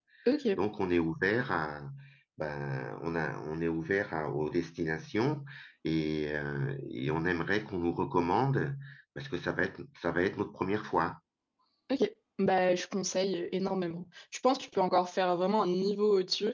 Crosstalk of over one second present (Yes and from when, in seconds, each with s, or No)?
No